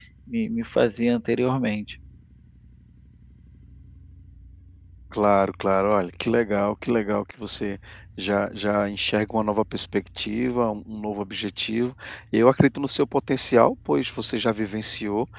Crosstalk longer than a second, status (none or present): none